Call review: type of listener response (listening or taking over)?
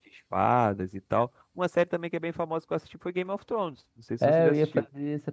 taking over